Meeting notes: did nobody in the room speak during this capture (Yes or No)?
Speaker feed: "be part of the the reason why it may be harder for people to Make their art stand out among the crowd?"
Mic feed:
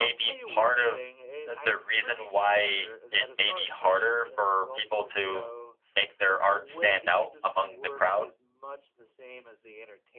No